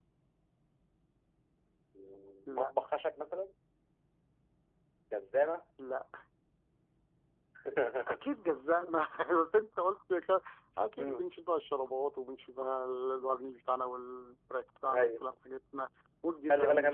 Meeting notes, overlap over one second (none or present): none